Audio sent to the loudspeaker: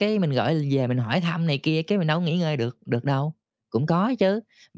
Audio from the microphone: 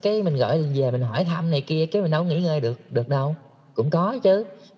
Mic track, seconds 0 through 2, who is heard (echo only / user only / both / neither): echo only